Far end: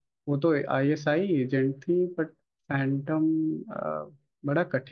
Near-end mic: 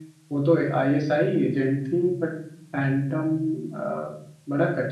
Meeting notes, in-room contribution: none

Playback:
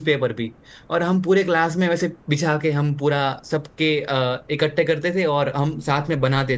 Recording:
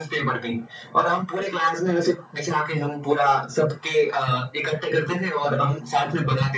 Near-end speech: none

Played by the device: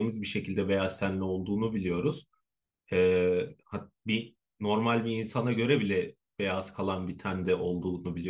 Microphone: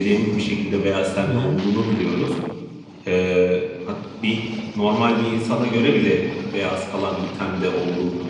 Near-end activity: present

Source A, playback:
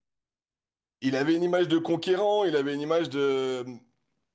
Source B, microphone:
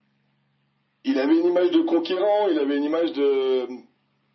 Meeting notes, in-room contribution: none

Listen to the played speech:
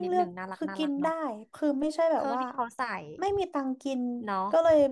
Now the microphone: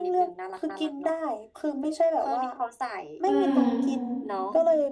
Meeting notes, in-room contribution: present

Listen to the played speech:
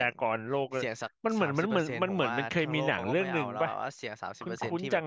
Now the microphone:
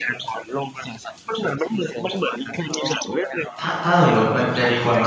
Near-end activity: present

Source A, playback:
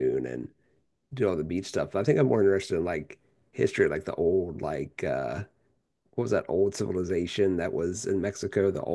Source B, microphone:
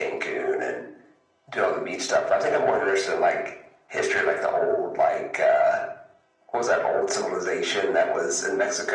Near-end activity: none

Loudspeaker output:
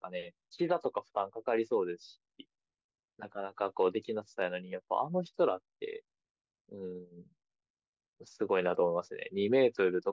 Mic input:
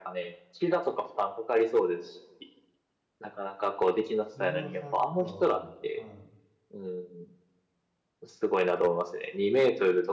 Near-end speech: present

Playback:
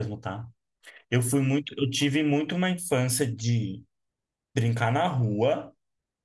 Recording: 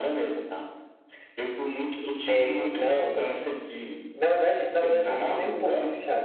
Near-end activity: present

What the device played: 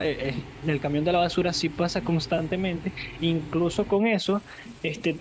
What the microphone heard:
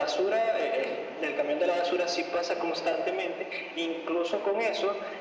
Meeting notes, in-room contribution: none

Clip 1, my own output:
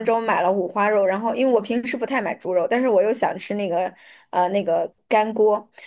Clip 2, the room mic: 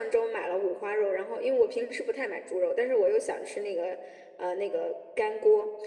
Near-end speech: none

